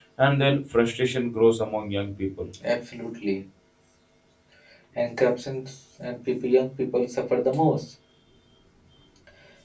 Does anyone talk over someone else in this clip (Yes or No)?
No